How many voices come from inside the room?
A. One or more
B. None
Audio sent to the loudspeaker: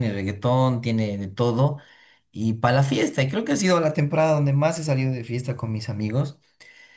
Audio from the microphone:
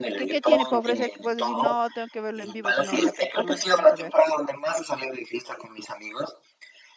A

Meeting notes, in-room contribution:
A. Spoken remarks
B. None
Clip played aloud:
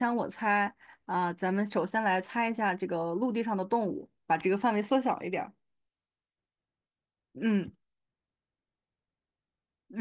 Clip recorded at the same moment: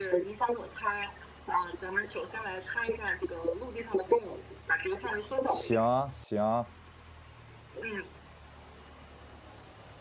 A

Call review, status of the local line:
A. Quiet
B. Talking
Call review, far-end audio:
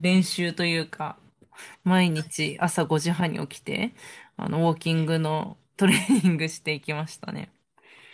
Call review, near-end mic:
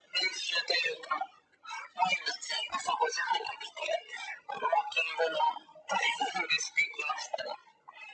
A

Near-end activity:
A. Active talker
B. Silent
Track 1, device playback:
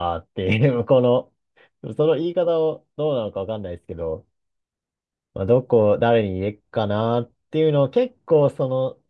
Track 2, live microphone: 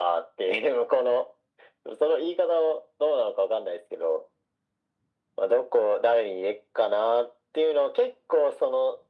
B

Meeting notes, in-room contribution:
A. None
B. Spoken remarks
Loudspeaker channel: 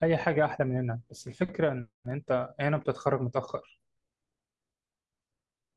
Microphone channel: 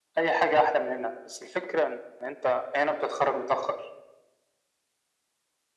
A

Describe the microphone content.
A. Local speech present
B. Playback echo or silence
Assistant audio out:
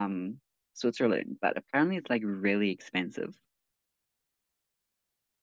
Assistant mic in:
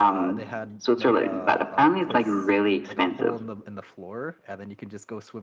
A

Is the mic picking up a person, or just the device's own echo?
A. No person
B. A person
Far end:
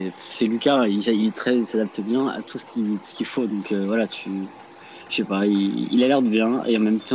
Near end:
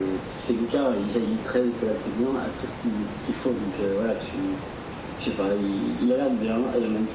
A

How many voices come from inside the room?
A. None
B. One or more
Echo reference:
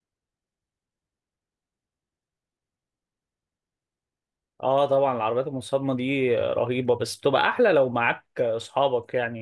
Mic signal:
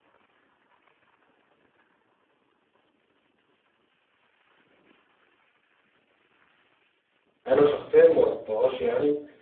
B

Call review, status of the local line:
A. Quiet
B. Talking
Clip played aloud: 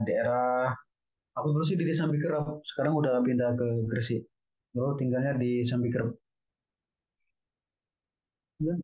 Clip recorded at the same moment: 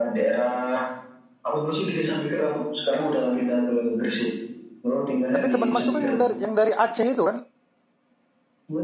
B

